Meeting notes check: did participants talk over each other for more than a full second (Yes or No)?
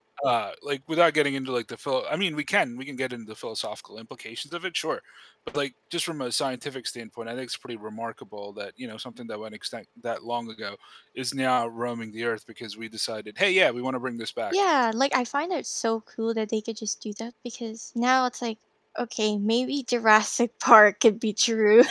No